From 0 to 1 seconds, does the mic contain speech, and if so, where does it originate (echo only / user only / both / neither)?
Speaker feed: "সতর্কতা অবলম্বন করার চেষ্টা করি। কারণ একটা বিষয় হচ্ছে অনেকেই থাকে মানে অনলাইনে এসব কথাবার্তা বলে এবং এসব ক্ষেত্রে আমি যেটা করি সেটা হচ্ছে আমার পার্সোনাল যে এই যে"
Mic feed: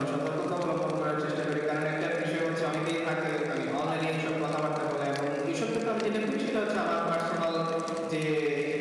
echo only